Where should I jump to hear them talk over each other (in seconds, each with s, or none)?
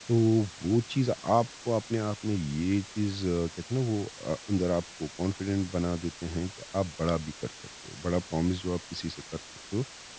none